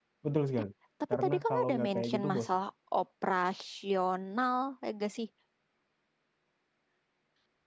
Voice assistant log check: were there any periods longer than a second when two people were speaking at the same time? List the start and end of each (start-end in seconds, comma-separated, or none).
1.2-2.6